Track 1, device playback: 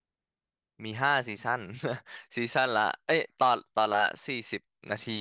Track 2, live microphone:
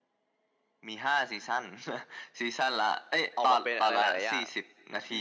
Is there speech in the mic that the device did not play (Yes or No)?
Yes